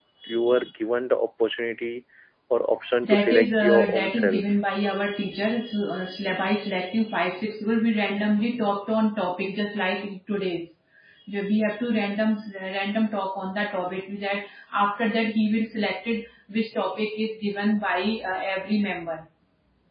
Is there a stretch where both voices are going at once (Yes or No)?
Yes